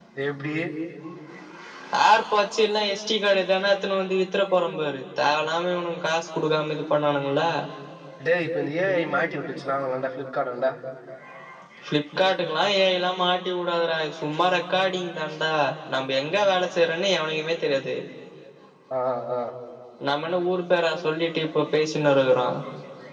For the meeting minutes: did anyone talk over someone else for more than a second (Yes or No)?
No